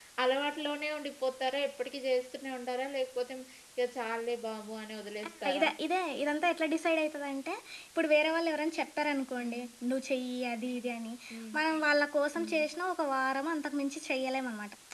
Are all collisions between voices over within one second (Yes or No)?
Yes